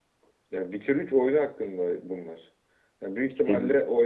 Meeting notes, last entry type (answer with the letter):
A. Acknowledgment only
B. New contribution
A